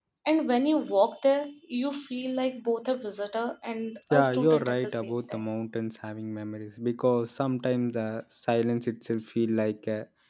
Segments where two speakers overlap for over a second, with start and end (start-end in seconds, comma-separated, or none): 4.1-5.4